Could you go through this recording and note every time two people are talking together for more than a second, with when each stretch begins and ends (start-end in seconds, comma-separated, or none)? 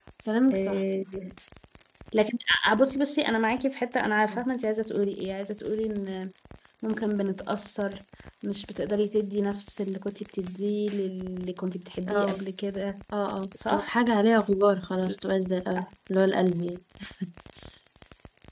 none